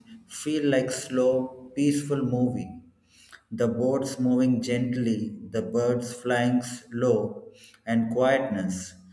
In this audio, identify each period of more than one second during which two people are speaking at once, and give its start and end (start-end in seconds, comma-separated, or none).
none